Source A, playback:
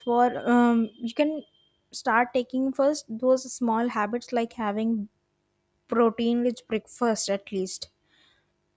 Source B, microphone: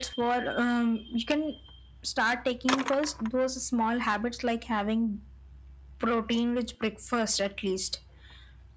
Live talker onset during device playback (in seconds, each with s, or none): none